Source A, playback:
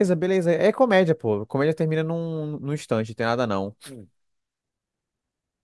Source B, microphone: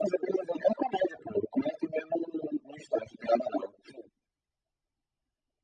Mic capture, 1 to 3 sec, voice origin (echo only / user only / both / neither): echo only